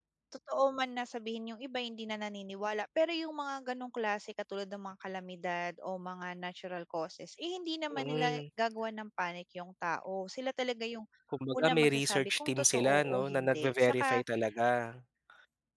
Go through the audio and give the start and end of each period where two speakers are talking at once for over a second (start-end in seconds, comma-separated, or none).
11.5-14.2